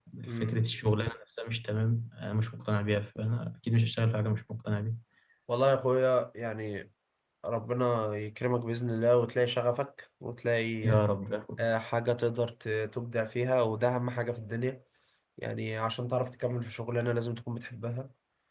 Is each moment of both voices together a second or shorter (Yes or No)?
Yes